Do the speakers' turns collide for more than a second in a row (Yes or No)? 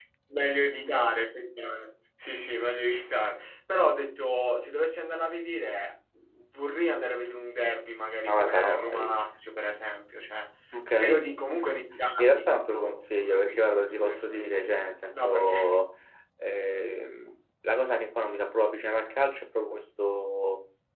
Yes